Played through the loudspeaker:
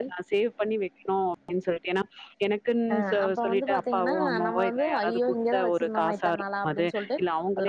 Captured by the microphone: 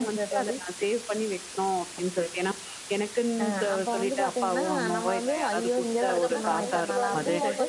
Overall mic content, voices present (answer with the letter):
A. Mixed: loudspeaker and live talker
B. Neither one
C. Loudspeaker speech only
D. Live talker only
A